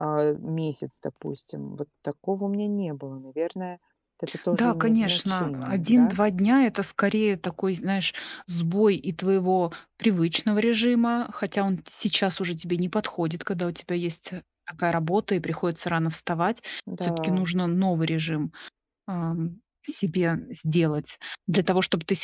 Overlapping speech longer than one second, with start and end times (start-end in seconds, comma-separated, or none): 4.5-6.2